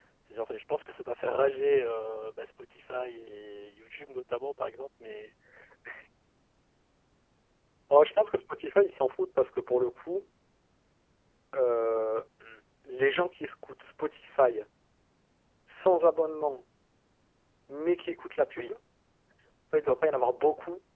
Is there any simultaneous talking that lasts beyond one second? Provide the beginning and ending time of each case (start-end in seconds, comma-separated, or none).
none